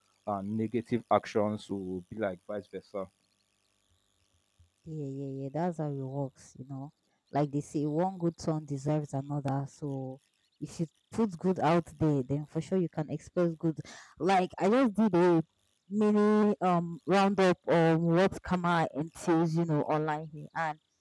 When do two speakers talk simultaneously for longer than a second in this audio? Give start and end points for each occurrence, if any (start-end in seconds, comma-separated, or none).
none